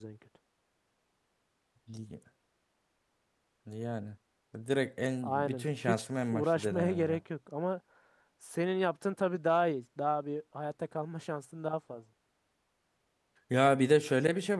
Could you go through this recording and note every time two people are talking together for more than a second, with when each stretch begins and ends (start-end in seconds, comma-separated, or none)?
5.2-7.2